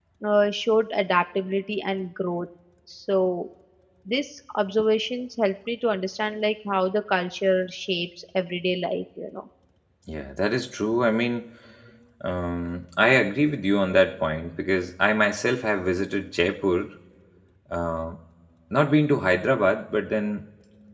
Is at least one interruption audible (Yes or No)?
No